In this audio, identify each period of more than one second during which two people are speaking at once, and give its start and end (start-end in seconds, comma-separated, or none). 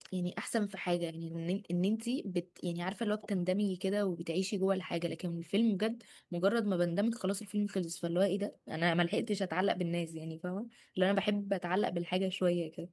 none